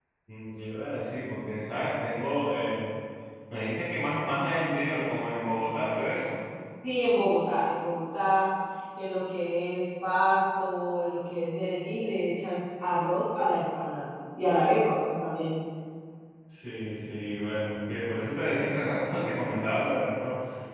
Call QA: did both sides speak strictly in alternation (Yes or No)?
Yes